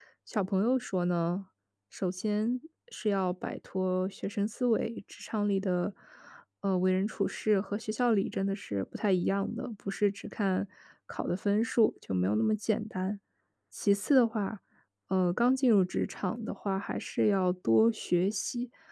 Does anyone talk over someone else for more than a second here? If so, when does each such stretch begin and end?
none

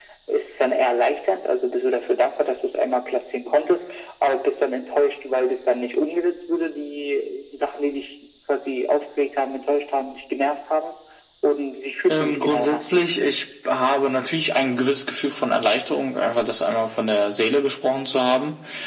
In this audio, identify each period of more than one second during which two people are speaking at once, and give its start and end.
12.1-13.3

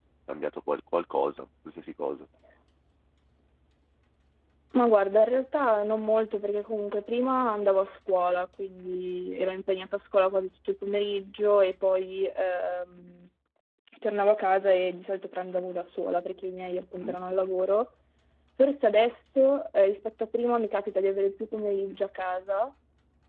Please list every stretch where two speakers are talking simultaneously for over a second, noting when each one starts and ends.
none

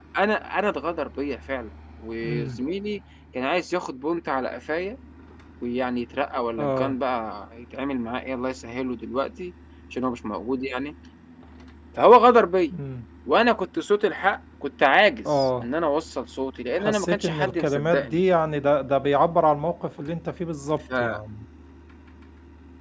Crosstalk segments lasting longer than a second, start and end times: 16.8-18.2

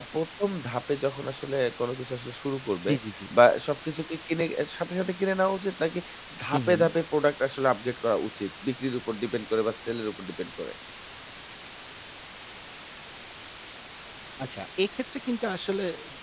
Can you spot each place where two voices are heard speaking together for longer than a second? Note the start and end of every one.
none

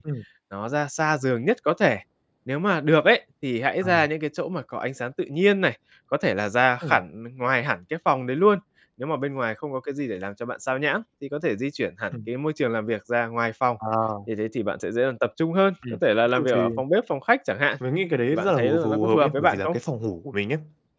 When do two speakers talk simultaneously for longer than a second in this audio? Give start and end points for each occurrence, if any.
18.3-19.8

